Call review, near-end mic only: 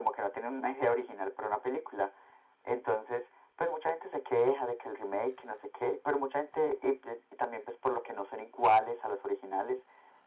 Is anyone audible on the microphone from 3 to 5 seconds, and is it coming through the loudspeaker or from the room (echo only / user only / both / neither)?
echo only